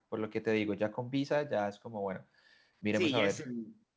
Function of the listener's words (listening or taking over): taking over